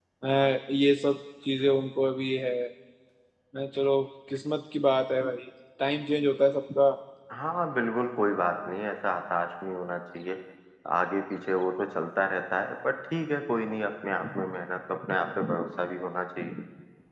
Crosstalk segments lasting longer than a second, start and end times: none

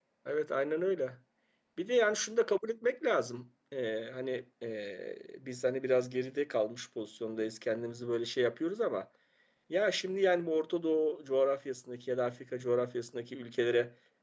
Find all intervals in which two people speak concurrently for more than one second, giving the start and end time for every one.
none

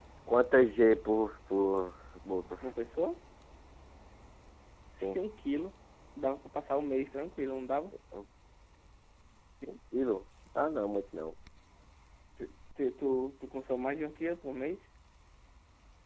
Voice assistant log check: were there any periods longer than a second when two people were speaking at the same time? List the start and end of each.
none

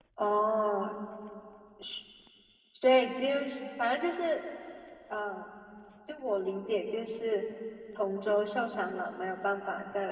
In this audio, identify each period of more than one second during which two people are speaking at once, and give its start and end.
none

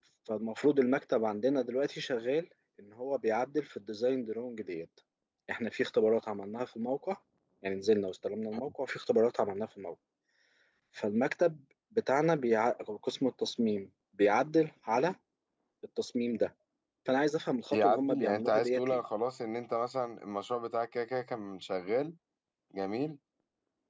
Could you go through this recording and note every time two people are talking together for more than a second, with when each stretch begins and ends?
17.7-19.0

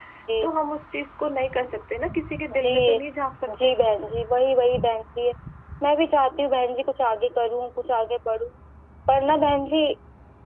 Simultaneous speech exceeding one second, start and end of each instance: none

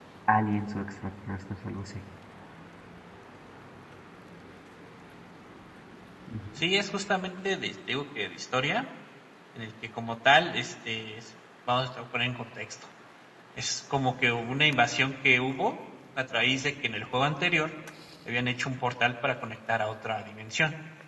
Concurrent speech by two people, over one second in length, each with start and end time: none

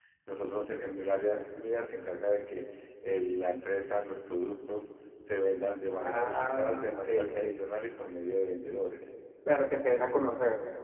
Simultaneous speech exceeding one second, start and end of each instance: 5.9-7.4

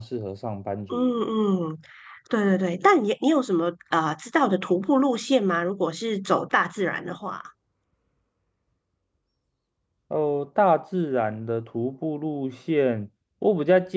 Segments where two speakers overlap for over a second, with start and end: none

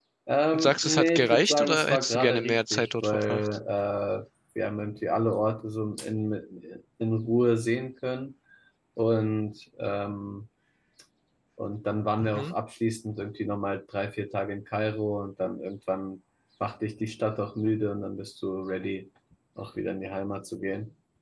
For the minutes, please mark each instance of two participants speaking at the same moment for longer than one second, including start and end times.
0.5-3.5

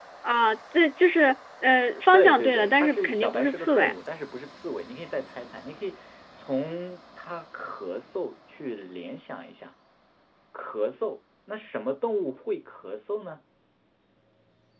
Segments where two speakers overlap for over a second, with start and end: 2.1-3.9

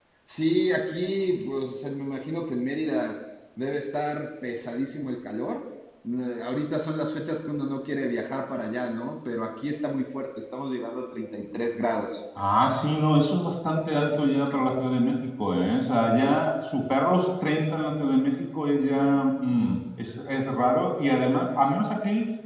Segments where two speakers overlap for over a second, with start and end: none

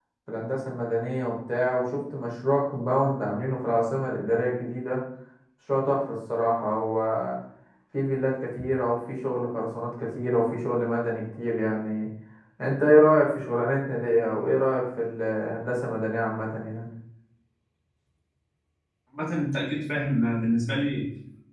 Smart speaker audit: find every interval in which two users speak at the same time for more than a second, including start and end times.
none

